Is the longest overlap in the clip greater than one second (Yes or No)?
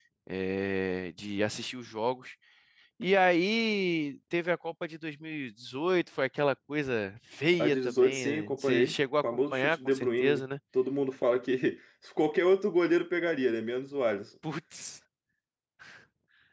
Yes